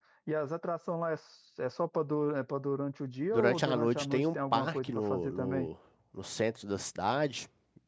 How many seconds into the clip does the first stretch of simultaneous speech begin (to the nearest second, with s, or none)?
3 s